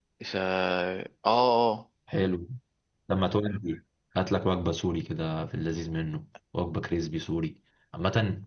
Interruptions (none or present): none